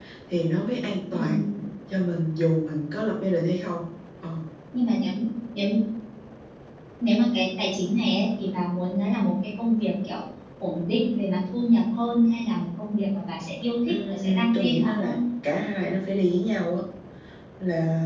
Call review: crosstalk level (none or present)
present